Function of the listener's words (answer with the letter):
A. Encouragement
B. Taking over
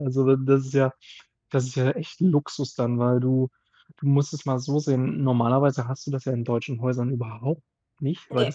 A